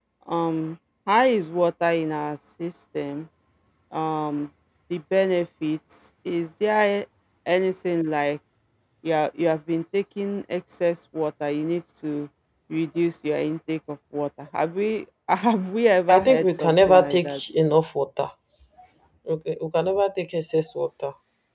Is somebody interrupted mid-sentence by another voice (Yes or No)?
Yes